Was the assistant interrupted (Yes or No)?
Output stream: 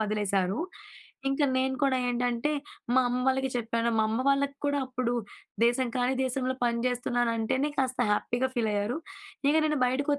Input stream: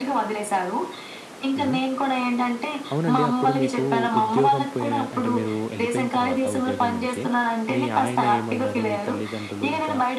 Yes